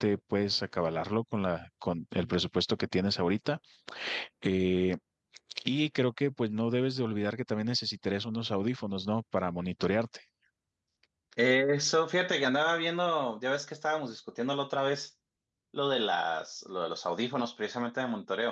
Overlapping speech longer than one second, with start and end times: none

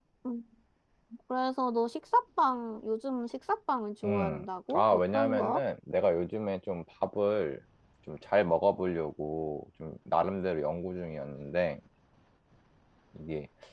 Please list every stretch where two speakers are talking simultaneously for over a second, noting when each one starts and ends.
4.0-5.6

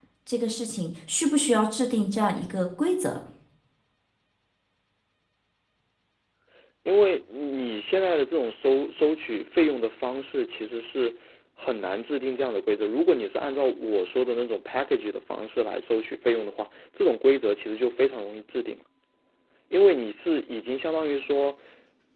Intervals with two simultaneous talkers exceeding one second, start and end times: none

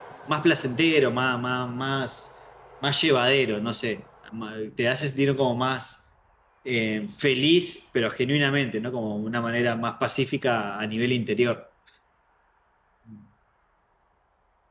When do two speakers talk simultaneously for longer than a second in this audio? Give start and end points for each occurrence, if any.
none

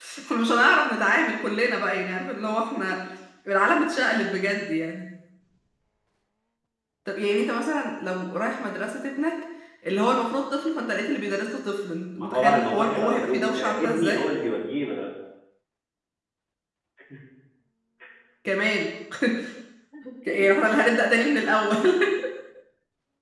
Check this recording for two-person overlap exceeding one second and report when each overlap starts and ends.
12.2-14.3

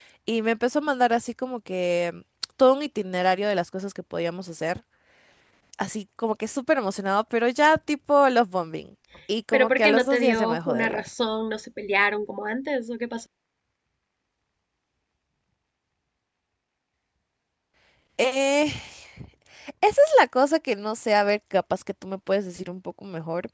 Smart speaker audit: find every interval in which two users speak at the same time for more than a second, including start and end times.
9.5-11.0

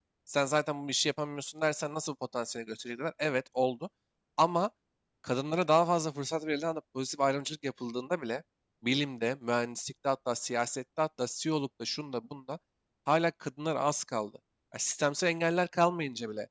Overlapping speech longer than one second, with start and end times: none

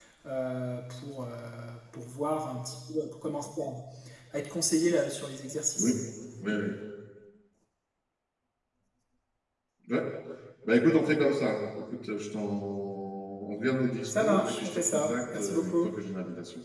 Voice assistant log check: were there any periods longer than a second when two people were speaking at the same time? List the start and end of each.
14.1-15.9

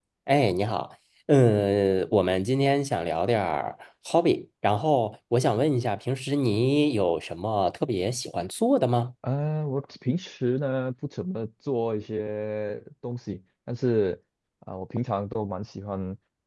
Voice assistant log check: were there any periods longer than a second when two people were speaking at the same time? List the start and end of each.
none

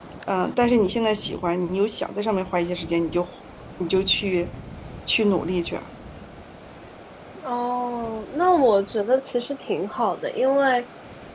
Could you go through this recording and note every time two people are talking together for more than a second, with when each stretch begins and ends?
none

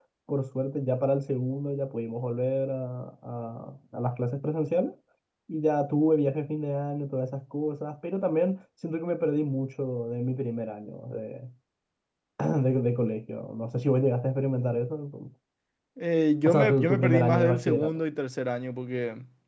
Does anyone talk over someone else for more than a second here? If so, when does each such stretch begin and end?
16.4-18.0

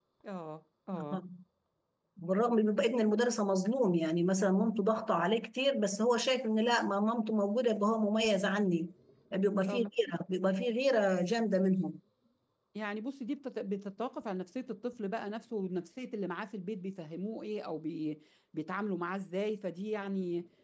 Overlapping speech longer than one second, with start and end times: none

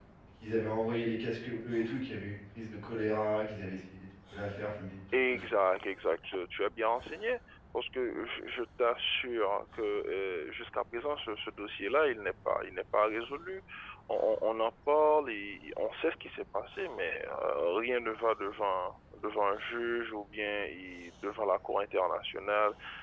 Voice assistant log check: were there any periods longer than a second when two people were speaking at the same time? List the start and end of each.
none

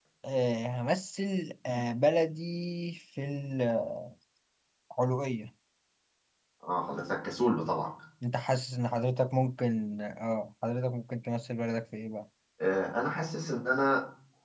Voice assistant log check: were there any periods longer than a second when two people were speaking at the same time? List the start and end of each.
none

